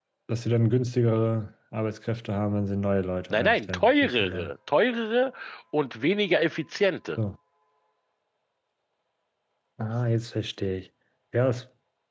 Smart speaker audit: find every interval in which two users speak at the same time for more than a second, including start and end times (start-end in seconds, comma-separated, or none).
3.3-4.5